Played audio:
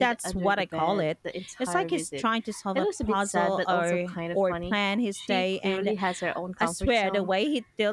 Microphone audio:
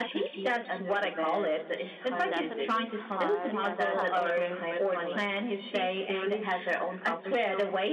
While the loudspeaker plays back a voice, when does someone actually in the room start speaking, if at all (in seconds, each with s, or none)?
2.1 s